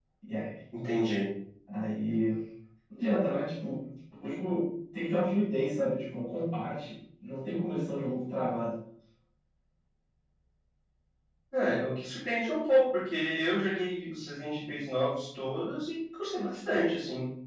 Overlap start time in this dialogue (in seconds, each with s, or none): none